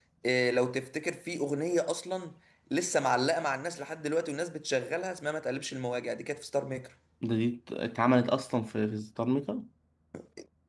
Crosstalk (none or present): none